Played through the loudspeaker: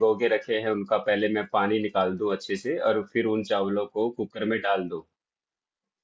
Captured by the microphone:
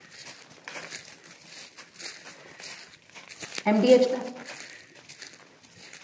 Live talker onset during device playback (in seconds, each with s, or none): 3.7 s